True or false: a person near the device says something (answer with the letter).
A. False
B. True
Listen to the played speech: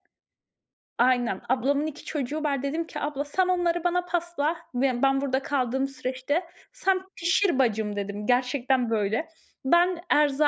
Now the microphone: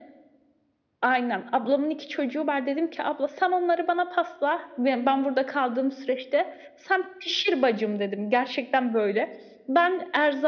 A